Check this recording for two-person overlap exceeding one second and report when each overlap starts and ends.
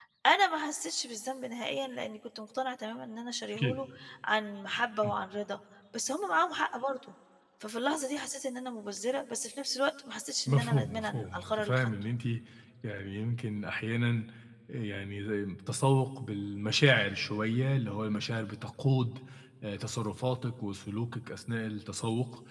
10.5-11.9

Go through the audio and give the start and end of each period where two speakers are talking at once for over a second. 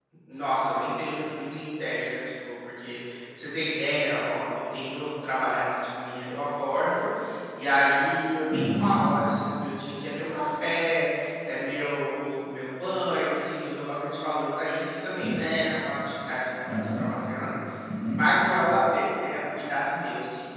none

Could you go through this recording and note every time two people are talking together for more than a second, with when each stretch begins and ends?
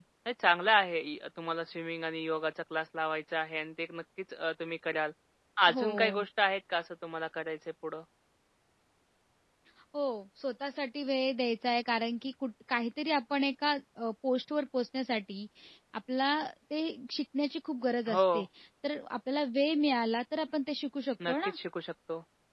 none

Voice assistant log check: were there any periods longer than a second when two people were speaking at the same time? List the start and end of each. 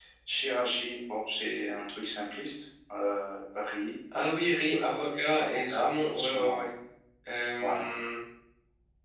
4.7-6.5

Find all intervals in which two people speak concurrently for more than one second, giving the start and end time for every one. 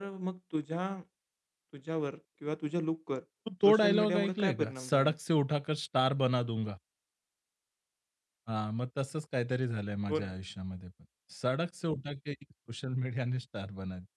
3.6-5.2

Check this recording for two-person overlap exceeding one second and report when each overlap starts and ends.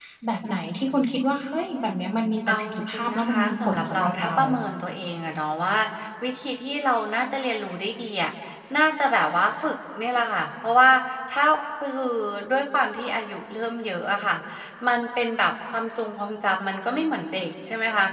2.5-4.3

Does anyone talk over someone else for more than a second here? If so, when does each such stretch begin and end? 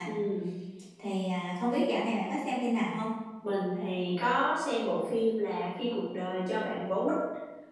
none

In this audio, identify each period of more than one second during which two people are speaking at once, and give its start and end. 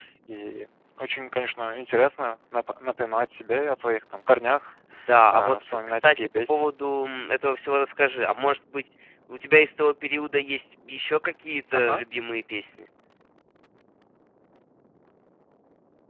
5.3-6.7

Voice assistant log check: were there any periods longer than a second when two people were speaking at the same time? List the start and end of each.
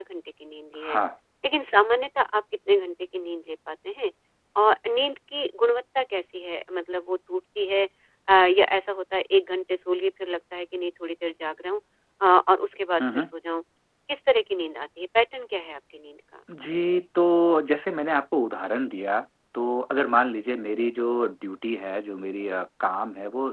none

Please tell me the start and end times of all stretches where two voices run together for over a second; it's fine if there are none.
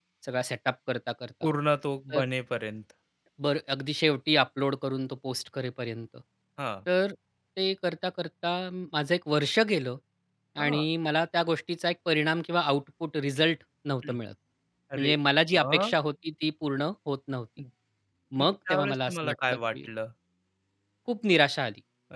18.4-19.8

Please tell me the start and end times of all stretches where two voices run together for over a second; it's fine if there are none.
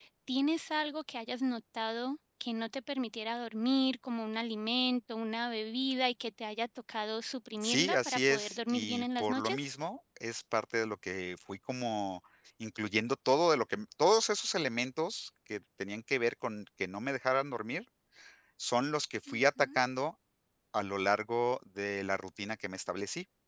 7.6-9.6

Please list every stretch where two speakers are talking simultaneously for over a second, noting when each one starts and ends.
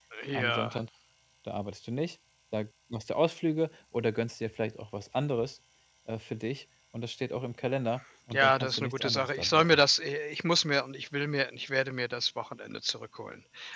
8.3-9.8

